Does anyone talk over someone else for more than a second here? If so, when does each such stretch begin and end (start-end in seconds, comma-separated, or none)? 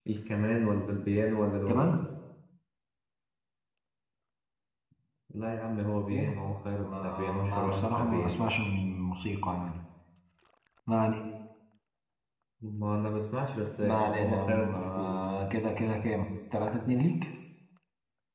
6.8-8.4, 13.8-15.1